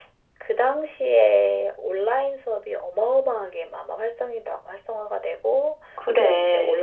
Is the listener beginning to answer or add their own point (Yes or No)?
No